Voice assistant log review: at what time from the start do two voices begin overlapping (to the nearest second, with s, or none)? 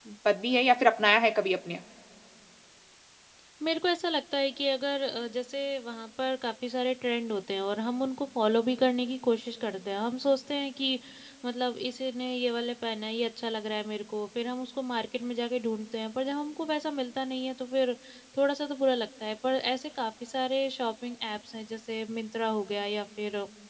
none